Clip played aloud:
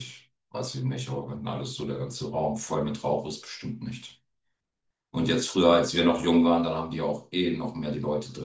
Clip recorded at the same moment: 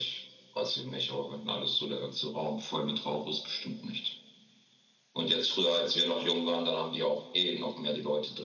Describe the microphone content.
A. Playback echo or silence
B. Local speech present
A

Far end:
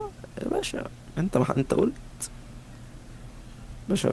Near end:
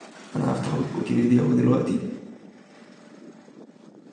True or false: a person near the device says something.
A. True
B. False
A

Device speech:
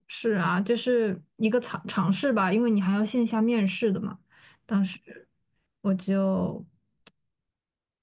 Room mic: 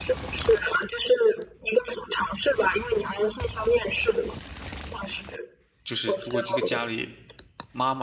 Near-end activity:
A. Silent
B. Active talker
B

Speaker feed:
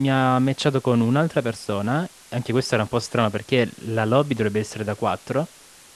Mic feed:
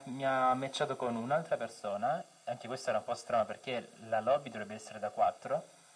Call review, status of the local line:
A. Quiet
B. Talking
A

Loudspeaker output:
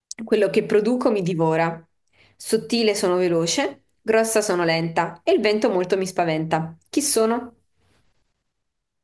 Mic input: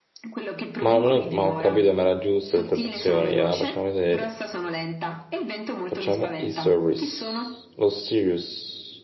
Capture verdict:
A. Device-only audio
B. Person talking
B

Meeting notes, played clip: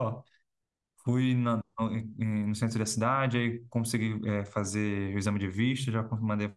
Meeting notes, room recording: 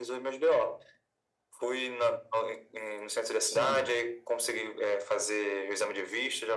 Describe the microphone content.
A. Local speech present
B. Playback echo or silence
A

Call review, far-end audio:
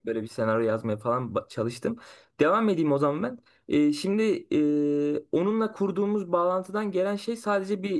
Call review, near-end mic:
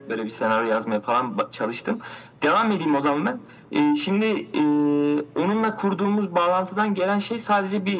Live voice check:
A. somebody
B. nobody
B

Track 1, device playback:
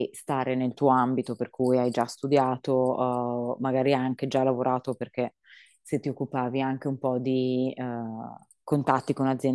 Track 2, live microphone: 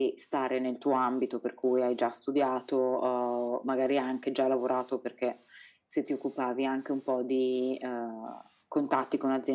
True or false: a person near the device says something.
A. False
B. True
A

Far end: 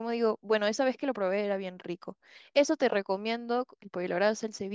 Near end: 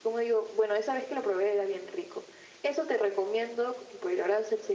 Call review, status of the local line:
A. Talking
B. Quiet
B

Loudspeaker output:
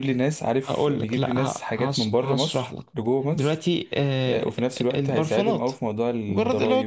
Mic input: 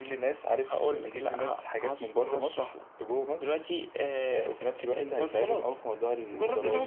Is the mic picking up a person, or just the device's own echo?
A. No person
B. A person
A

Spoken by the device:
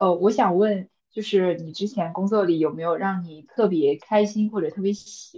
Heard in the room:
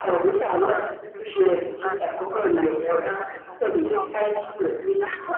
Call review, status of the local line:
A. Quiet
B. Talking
B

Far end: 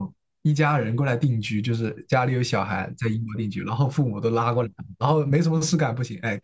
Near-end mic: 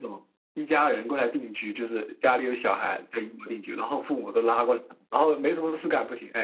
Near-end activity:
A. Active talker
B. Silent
B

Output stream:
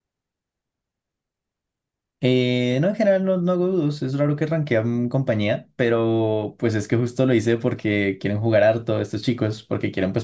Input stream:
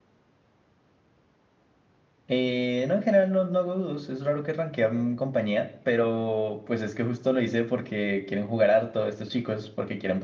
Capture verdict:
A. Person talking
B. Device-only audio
B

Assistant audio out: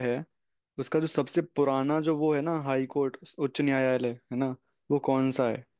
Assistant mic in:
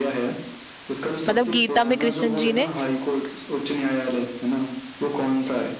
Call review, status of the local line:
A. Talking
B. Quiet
A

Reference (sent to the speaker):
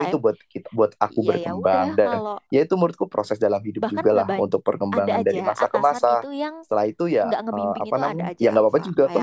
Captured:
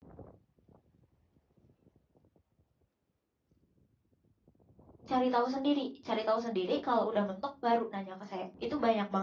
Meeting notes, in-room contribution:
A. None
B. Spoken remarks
B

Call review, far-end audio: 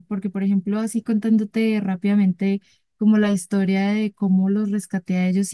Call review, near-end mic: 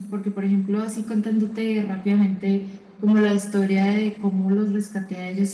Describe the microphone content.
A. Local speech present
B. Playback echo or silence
B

